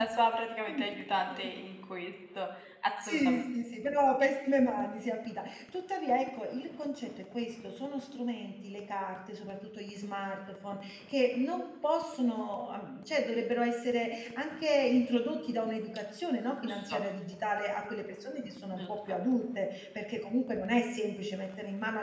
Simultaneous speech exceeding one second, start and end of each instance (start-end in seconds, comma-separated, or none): none